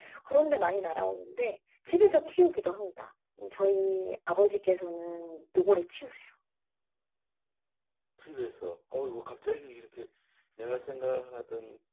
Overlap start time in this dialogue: none

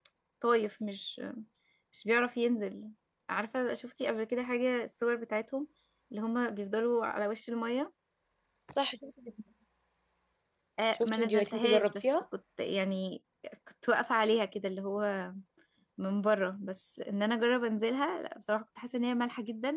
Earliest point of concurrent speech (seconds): 10.9 s

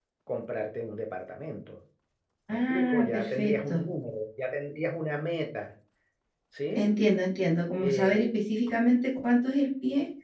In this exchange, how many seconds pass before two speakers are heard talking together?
2.5 s

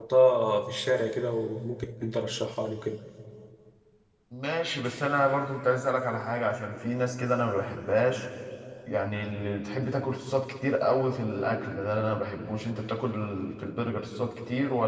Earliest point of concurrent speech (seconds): none

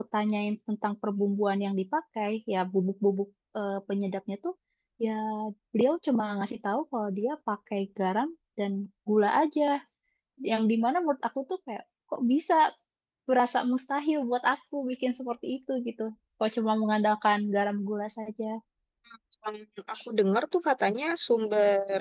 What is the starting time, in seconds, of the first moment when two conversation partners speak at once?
none

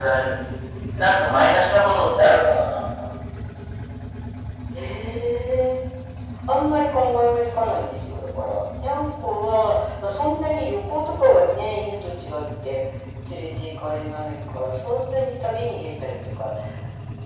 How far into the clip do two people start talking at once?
none

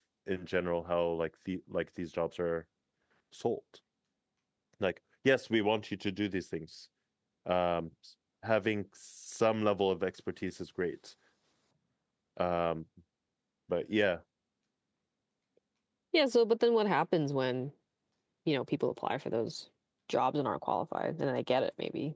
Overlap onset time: none

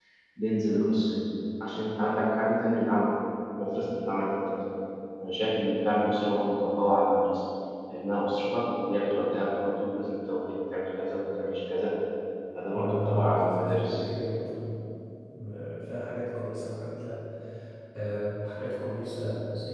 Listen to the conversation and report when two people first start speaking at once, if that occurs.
12.7 s

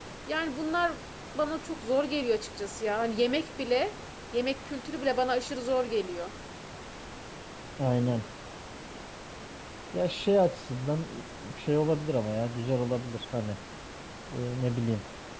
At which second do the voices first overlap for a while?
none

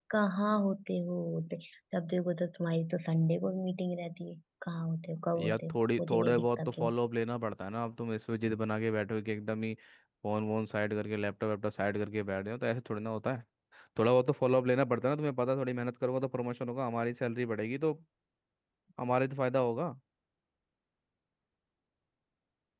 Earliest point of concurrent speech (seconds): 5.2 s

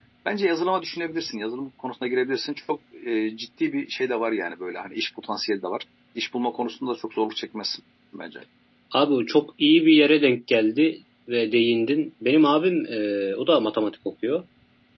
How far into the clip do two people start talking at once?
none

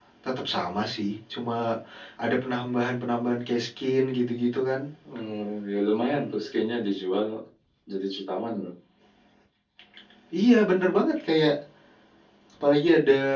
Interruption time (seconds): none

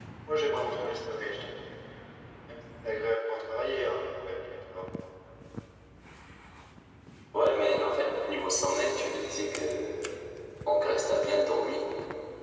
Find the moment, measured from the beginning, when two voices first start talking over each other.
none

